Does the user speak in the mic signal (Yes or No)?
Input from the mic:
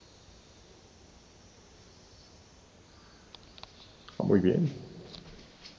Yes